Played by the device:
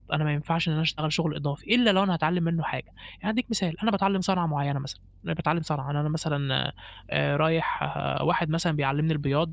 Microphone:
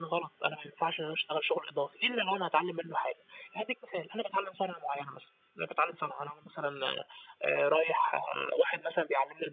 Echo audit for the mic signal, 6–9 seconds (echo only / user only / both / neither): echo only